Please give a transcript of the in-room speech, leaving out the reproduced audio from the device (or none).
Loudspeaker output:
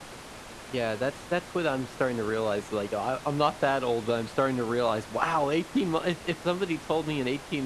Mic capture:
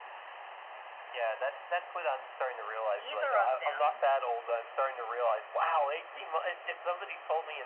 either of them